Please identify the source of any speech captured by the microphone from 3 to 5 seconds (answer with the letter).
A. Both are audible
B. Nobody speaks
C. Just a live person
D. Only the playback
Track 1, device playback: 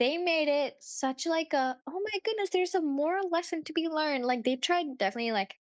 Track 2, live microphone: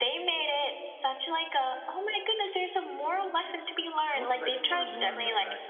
A